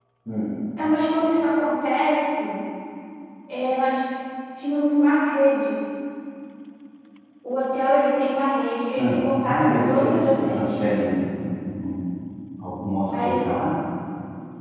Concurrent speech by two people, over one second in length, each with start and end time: 9.0-10.6

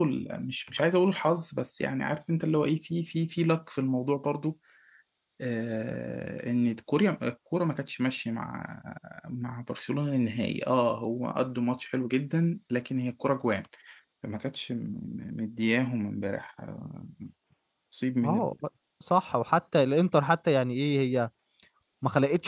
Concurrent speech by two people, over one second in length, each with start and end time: none

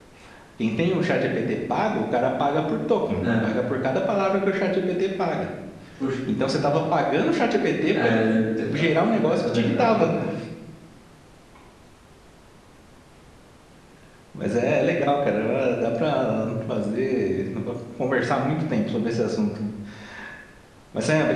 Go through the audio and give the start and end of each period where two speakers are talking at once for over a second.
8.7-10.1

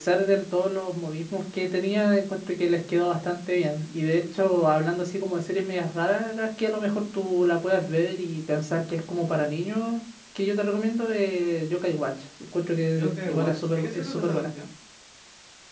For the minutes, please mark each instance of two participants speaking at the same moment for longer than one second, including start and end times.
13.0-14.4

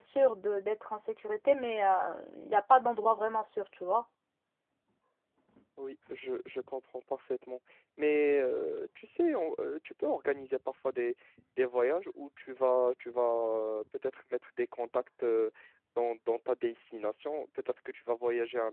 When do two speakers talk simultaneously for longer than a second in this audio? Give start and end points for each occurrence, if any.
none

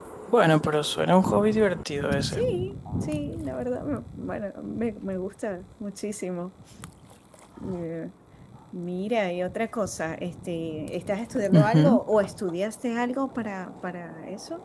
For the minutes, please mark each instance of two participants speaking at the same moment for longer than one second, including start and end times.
none

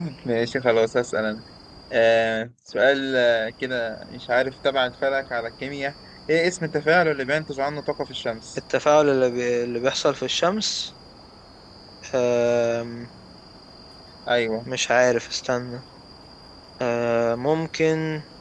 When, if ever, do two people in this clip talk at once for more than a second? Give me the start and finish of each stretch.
none

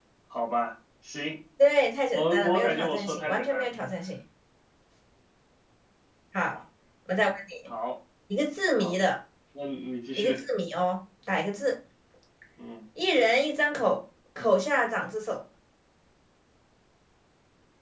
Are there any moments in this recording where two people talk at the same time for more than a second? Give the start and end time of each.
2.1-3.7

